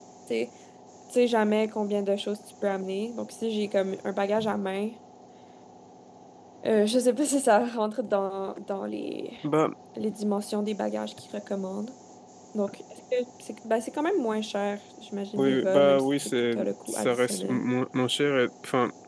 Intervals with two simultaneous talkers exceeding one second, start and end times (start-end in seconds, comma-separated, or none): 15.4-17.6